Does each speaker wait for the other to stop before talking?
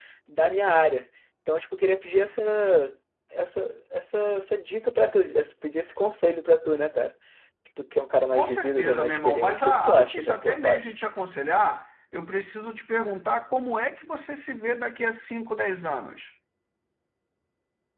No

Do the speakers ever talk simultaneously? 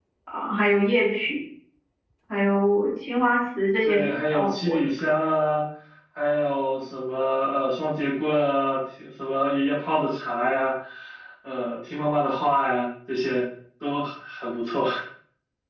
Yes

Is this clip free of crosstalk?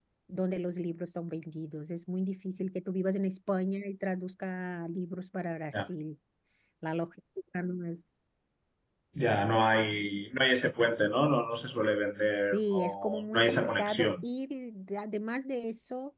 No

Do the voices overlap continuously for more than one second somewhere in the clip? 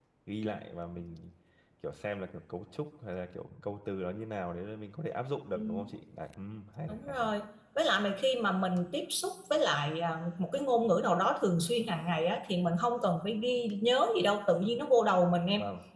No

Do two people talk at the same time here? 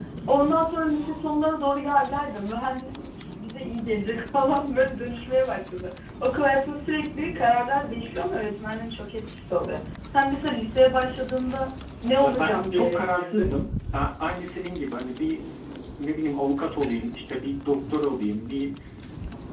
Yes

